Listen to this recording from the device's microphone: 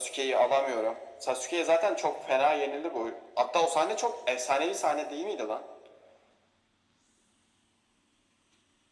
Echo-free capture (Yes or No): No